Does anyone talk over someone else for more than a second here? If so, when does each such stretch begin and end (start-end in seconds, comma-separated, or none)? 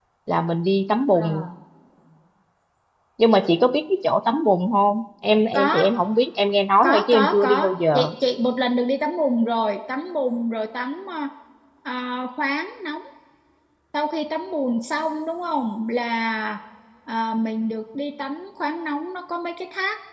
6.8-8.1